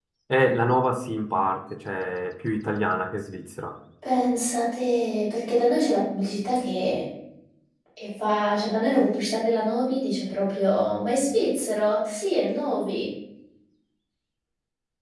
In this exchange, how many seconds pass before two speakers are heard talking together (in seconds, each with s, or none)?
none